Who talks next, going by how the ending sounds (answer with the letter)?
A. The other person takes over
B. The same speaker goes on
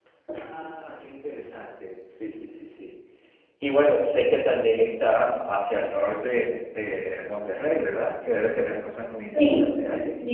A